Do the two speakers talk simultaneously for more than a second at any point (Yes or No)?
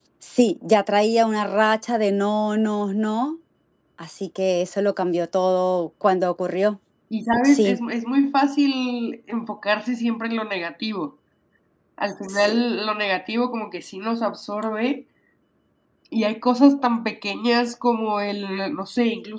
No